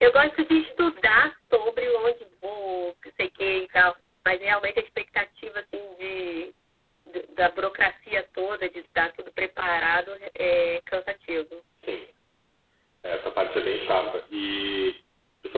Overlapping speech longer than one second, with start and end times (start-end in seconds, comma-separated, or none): none